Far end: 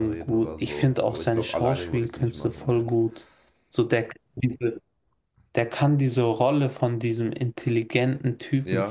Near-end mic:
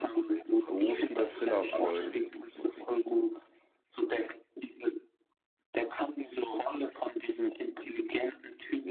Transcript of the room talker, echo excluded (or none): so viele Filler-Folgen.